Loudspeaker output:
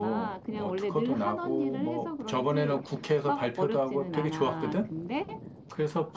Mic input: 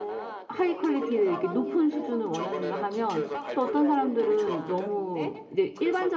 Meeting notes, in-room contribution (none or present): present